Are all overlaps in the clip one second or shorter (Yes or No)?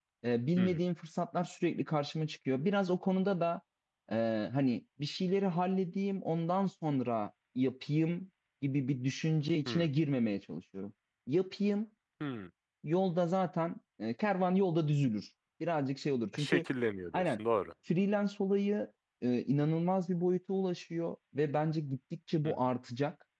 Yes